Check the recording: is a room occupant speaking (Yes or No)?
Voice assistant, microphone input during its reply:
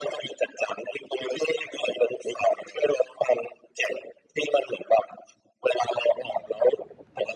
No